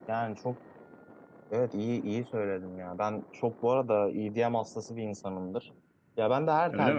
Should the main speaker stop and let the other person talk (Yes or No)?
No